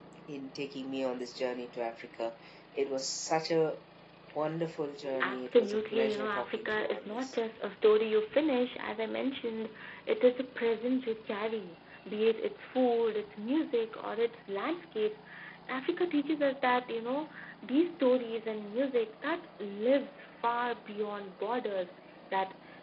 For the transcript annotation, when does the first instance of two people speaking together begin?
5 s

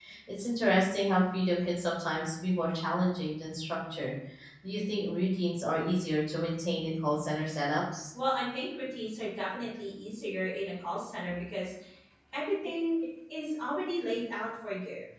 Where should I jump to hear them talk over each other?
none

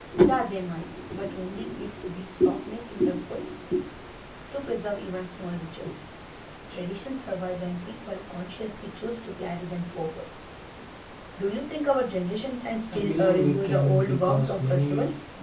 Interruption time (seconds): 13 s

